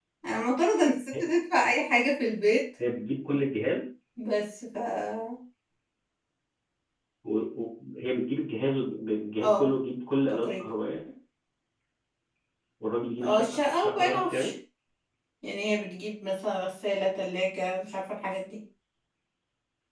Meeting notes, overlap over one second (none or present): present